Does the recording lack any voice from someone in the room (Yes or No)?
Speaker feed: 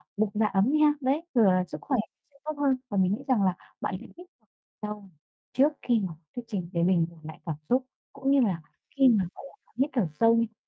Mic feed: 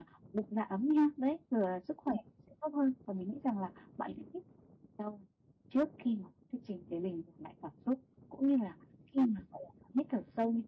Yes